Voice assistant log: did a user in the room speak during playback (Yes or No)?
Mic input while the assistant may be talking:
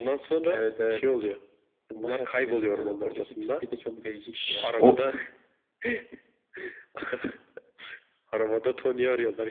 Yes